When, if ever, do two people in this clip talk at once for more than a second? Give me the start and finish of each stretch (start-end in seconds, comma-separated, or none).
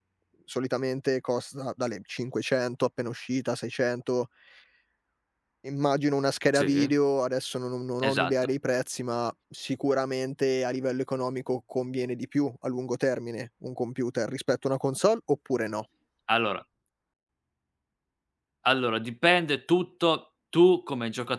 none